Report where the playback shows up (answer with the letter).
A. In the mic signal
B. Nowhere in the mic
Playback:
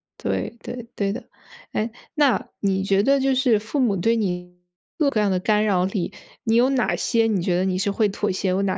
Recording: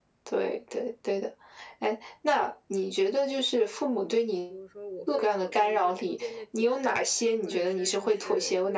A